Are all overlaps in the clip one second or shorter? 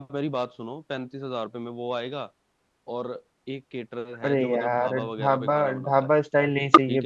No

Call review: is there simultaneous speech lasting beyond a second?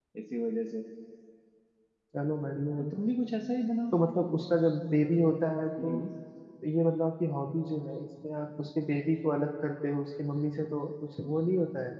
No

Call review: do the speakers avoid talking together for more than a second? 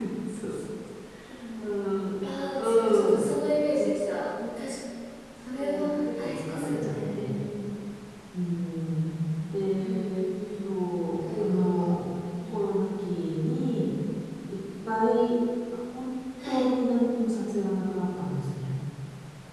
No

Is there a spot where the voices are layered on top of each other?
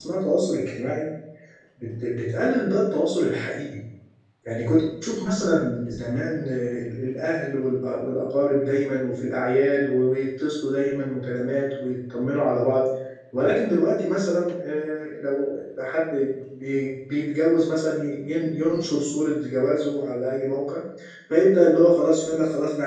No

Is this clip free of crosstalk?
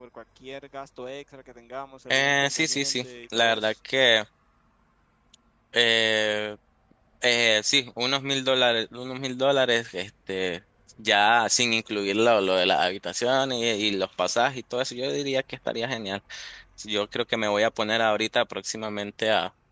No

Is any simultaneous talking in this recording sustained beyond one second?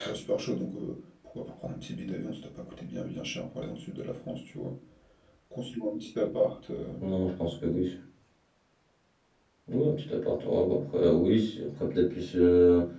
No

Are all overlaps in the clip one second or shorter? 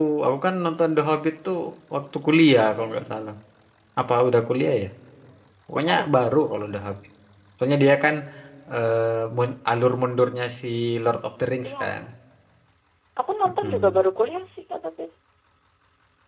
Yes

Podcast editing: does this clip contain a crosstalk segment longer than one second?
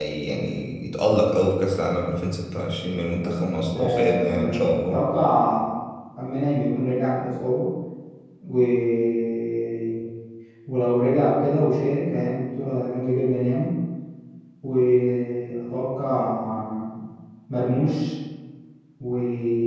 Yes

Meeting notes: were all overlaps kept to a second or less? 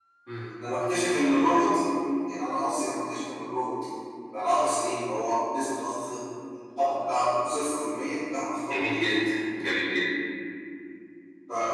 Yes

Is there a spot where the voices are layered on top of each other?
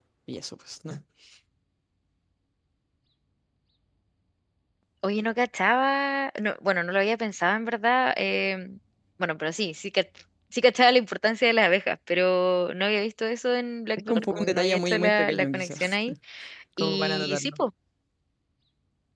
Yes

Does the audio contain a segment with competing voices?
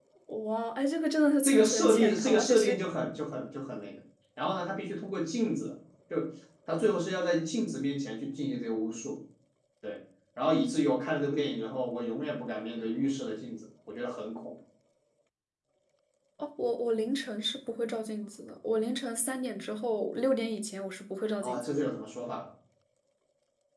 Yes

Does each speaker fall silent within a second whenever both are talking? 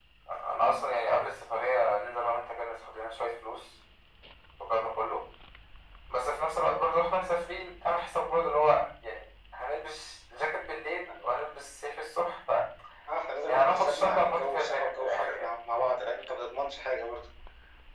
No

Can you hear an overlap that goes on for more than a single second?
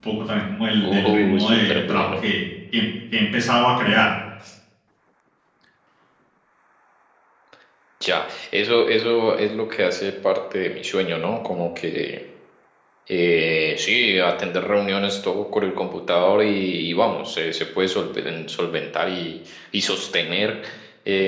Yes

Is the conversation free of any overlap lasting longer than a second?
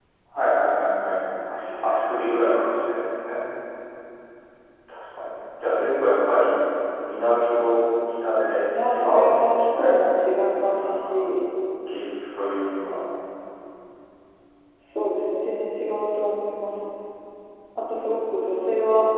No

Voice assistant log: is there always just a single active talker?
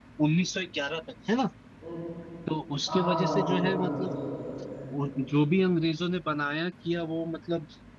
No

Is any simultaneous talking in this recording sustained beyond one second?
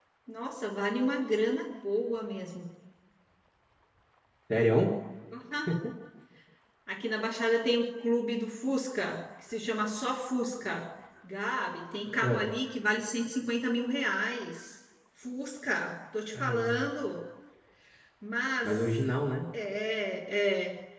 No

